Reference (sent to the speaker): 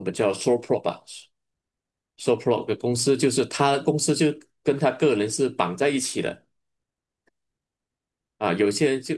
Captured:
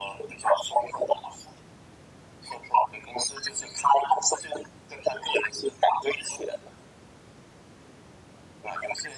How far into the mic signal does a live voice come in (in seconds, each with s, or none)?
none